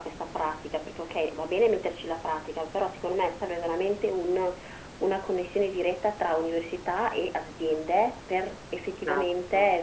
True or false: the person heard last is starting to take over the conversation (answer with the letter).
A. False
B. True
A